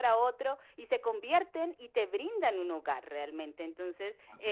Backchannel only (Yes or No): Yes